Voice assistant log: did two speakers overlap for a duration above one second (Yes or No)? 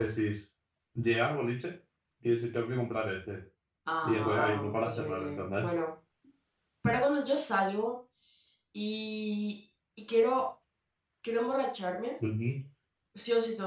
Yes